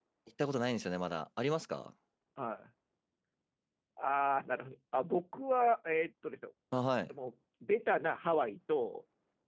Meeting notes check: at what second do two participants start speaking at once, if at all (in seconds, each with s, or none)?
none